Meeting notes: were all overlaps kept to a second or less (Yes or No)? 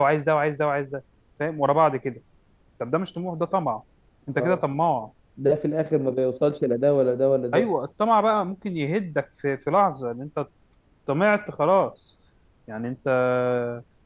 Yes